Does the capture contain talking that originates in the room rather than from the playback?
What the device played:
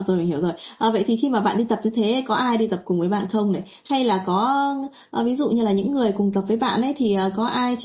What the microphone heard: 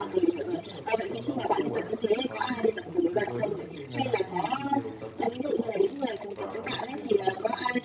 Yes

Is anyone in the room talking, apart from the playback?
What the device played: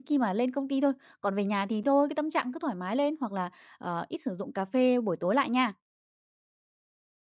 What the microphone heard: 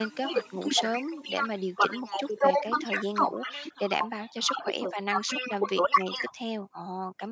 Yes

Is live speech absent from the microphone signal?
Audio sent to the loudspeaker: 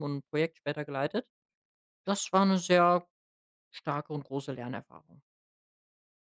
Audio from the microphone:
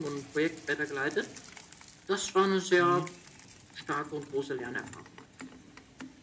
No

